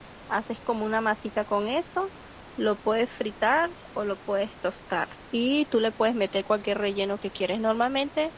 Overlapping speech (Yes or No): No